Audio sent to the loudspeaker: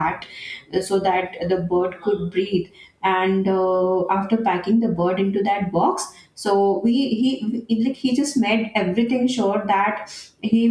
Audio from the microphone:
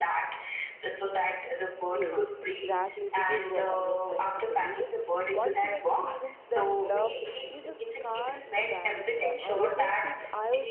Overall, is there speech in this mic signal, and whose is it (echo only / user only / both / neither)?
both